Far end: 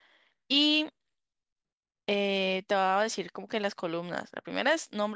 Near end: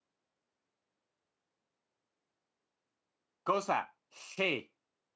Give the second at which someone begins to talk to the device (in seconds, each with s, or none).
3.4 s